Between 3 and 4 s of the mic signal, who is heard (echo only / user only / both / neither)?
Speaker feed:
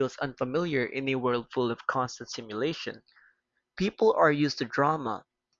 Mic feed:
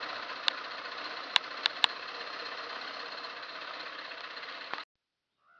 neither